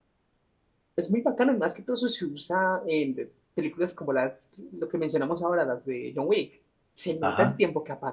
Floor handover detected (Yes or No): Yes